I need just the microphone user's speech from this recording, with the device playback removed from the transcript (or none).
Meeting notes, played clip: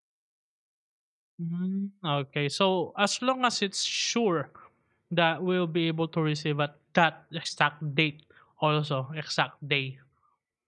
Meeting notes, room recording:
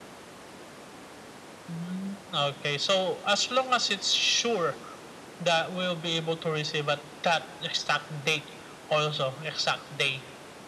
none